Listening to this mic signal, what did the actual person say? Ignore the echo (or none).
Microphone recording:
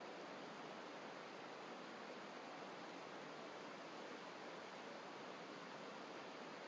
none